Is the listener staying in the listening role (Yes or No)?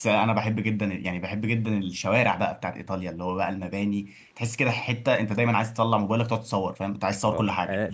No